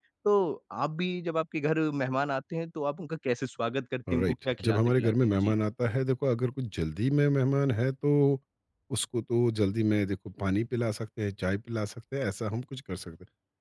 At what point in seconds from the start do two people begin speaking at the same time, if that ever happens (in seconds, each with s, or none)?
4.1 s